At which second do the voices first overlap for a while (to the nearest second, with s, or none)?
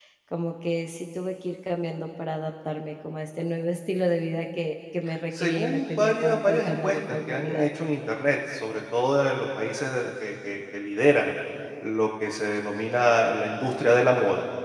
5 s